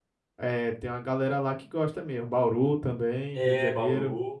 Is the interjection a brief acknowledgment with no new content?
No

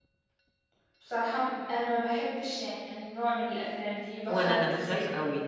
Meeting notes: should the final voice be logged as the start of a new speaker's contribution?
Yes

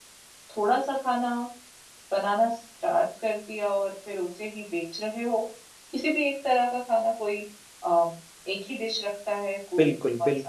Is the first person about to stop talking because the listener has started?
Yes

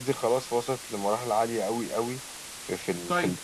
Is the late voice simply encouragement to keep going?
No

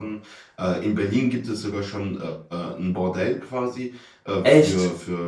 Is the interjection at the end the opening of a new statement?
No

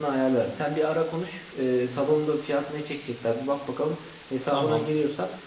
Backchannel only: Yes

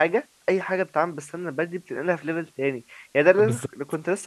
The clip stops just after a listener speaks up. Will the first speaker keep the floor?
Yes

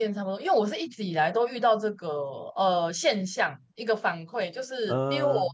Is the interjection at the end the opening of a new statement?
No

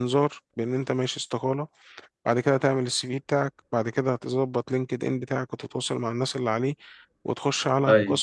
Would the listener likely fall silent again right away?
Yes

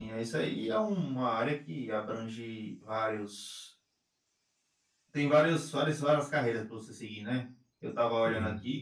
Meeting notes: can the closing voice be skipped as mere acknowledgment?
Yes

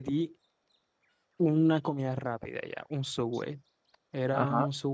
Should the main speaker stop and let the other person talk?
No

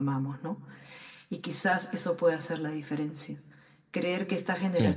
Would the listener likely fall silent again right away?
Yes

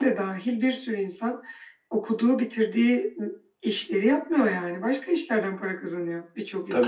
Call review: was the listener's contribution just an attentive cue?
No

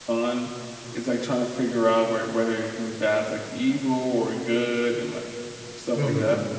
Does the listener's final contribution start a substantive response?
Yes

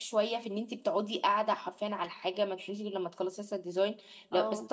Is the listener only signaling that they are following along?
Yes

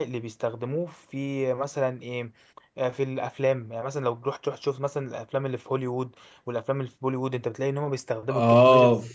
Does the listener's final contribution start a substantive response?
Yes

